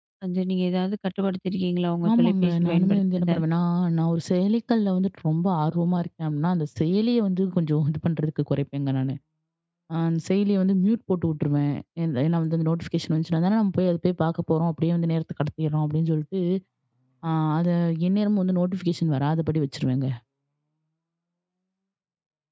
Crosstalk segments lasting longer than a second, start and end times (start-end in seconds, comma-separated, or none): 2.1-3.3